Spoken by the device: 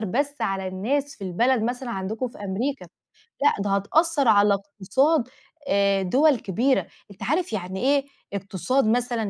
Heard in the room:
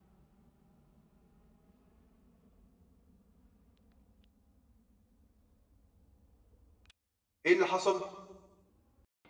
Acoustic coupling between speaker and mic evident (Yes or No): No